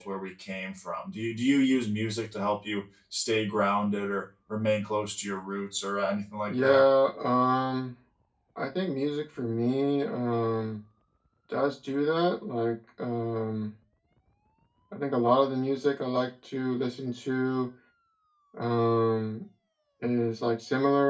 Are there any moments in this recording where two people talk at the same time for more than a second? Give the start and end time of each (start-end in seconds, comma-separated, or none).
none